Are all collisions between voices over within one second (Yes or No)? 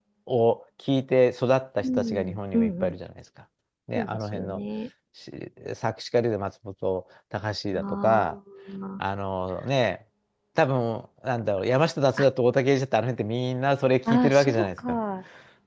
No